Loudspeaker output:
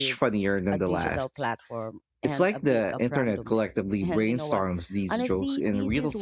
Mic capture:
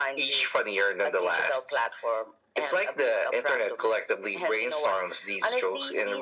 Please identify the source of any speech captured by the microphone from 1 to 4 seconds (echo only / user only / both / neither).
echo only